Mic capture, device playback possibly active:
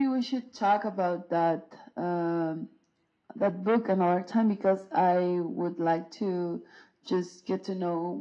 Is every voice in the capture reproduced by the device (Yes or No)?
Yes